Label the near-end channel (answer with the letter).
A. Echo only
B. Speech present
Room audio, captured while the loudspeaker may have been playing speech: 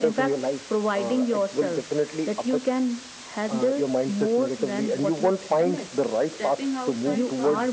B